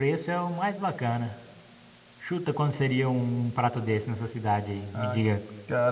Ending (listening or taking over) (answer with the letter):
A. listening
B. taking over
B